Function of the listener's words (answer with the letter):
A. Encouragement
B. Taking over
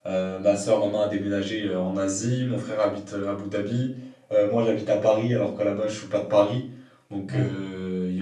A